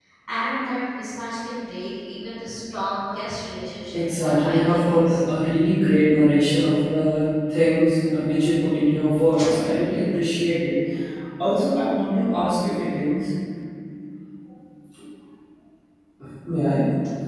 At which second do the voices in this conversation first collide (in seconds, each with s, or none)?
3.9 s